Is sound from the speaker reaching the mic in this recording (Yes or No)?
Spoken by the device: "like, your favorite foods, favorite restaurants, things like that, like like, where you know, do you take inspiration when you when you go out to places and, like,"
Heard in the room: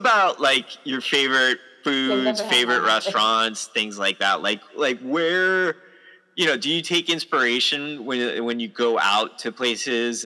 Yes